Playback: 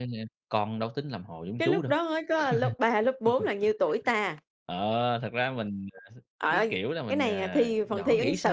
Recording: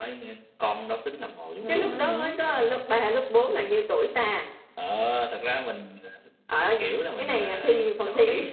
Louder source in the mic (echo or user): echo